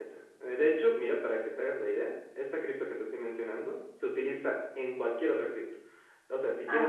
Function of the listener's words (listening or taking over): listening